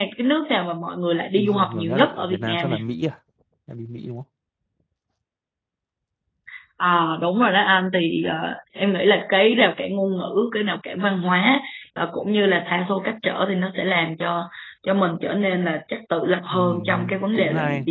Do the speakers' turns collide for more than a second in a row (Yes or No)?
Yes